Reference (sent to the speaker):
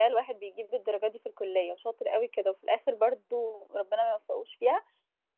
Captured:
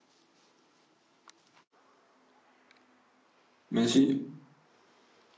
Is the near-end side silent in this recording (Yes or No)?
No